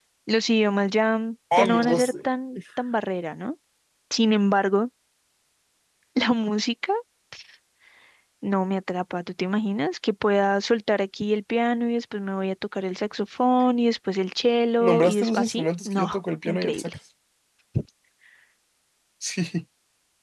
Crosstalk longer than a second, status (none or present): present